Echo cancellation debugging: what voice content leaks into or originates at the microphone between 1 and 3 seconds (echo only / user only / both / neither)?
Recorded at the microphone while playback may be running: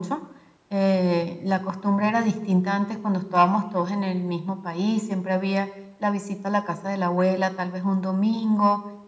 echo only